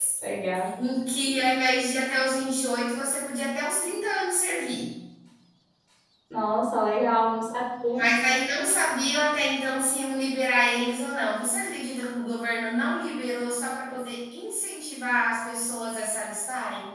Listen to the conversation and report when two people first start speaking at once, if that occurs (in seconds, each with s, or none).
none